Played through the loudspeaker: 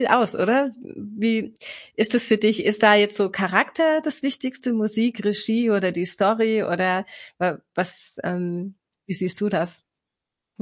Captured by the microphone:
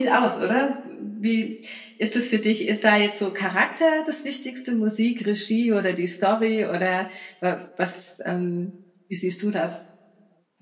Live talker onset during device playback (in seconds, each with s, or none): none